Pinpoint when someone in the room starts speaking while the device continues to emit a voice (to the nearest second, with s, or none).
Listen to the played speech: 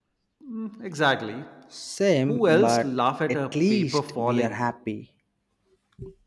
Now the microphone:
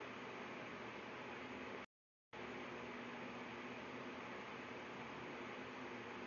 none